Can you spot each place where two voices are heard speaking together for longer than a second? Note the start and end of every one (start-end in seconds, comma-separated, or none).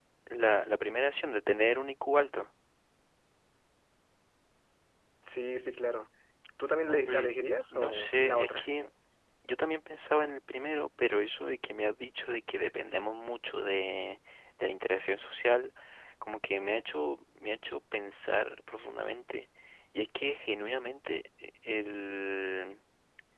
6.9-8.7